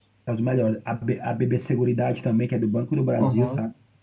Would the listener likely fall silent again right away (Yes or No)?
No